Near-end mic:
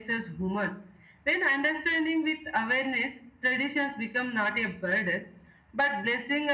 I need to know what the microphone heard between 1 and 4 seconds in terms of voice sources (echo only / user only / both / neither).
echo only